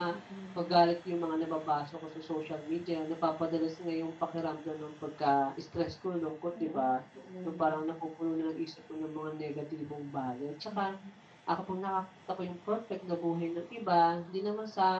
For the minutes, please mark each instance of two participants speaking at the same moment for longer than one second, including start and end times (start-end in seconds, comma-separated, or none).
none